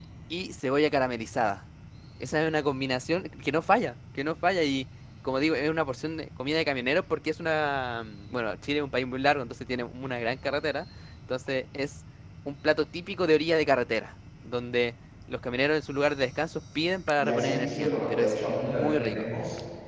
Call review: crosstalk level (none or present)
present